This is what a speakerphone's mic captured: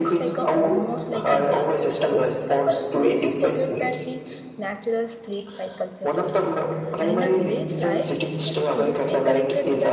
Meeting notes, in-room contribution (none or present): present